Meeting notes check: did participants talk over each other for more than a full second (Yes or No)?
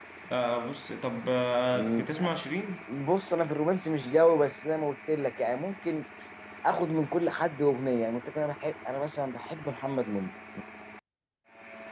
No